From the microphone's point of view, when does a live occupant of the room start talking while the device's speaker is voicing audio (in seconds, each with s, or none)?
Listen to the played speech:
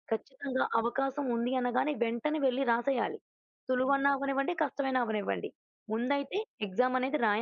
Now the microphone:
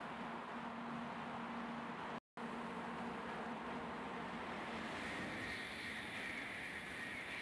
none